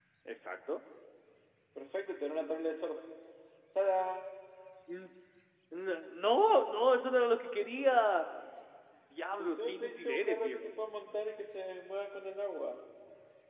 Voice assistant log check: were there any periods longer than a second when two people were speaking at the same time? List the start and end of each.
9.4-10.7

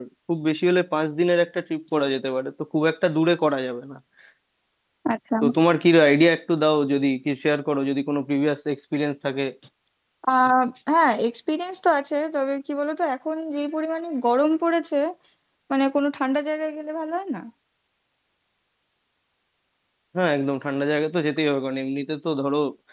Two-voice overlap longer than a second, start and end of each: none

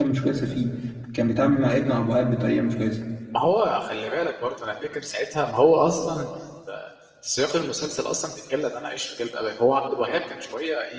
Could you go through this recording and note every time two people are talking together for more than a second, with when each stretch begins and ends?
none

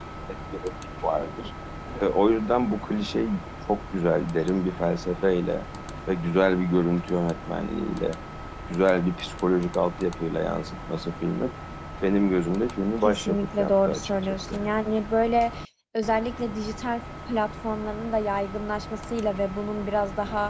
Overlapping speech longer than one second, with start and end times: 13.0-14.7

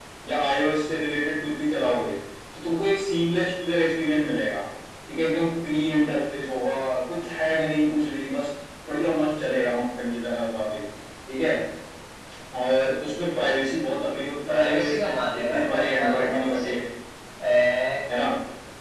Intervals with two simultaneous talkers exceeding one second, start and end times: 14.5-16.8

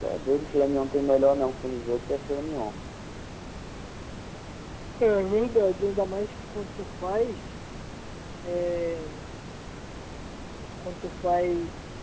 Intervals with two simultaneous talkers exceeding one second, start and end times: none

